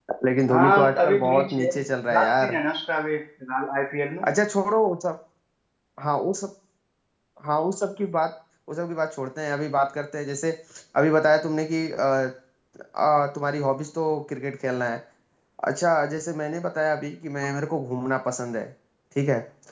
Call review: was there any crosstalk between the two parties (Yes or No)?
Yes